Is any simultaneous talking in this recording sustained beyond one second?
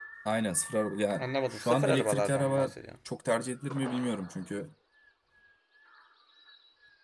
Yes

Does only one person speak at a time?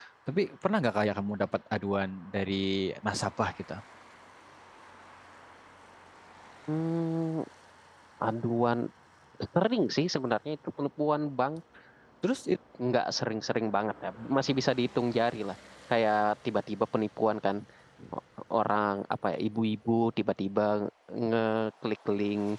Yes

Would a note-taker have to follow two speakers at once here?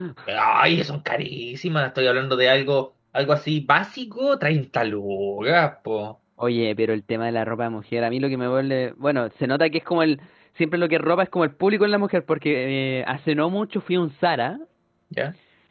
No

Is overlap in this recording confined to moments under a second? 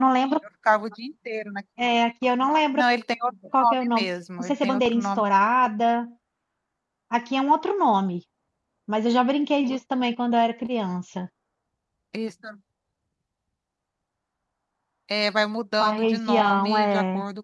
No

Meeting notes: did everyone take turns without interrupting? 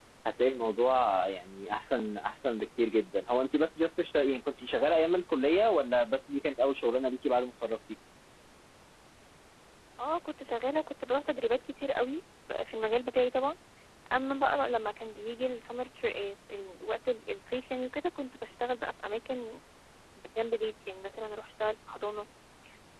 Yes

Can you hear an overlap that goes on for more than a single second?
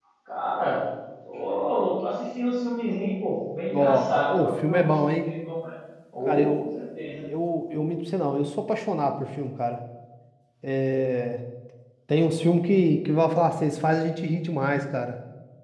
Yes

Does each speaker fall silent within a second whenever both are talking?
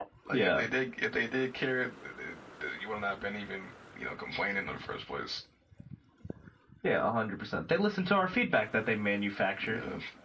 Yes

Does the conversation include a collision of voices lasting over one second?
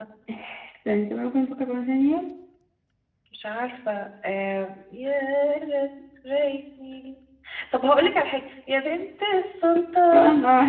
No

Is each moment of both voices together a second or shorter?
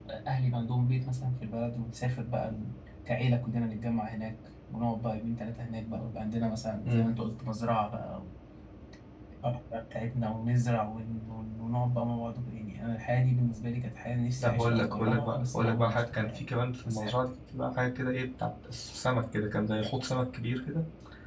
No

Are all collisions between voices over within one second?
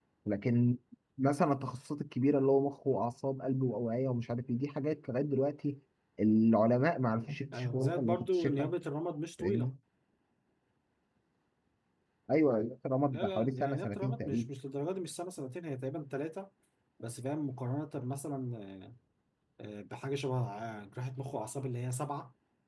No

